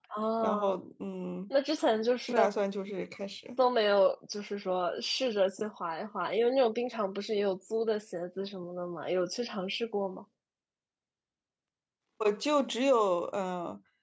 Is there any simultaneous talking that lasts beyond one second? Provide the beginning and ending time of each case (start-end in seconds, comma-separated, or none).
none